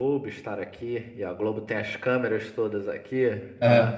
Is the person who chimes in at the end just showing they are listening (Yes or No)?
Yes